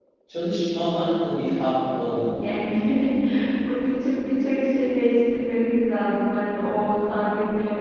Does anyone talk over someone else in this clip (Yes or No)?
No